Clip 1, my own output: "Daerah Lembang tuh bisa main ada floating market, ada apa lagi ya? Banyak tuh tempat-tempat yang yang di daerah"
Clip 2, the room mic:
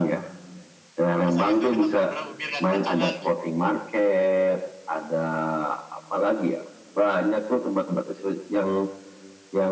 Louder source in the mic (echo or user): echo